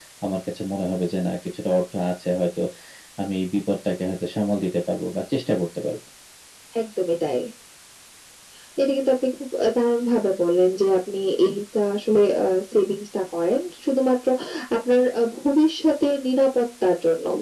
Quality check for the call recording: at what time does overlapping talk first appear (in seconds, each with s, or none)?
none